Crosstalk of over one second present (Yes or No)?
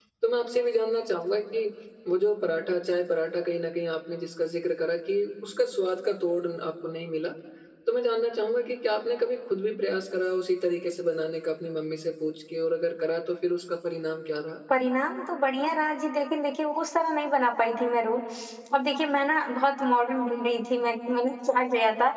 No